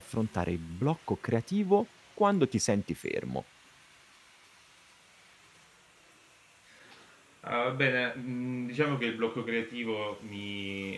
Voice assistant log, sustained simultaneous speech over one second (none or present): none